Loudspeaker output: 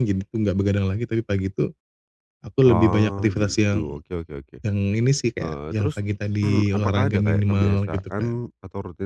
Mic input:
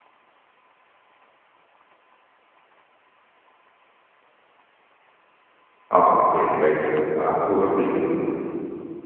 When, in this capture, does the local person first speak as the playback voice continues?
5.9 s

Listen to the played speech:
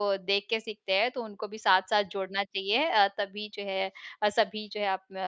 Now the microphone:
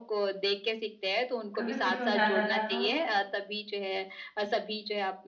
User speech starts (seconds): 1.6 s

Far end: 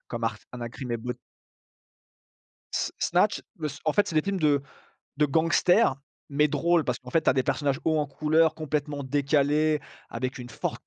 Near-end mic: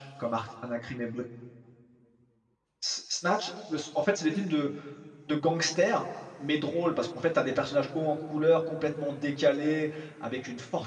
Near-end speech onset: none

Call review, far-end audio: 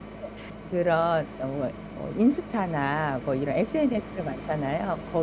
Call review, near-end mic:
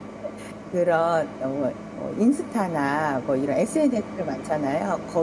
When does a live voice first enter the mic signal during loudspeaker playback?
none

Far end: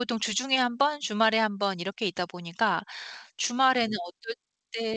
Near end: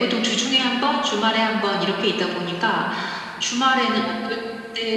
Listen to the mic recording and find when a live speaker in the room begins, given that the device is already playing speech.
none

